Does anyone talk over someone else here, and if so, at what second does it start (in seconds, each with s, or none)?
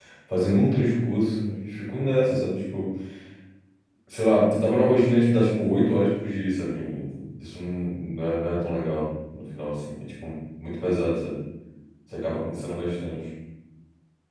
none